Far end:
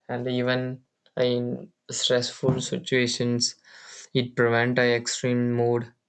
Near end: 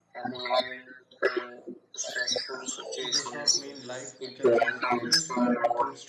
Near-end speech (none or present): present